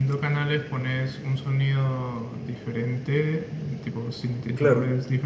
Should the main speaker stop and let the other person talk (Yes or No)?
No